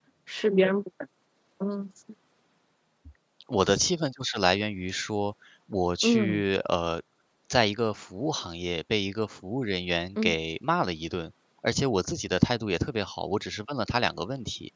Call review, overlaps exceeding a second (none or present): none